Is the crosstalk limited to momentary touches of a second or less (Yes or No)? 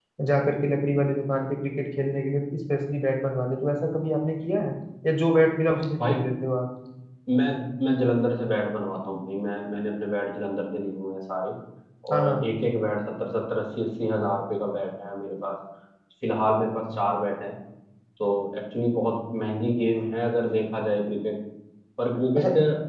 Yes